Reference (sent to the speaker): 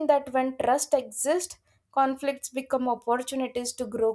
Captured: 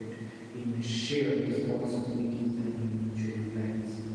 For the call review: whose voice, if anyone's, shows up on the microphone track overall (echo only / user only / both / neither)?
user only